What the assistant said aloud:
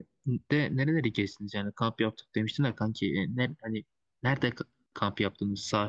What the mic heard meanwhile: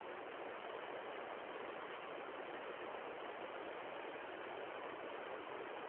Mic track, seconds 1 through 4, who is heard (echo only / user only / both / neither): neither